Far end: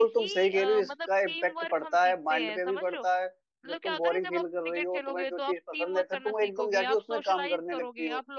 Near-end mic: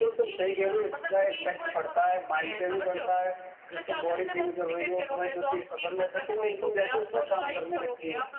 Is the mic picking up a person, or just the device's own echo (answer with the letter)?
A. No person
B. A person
A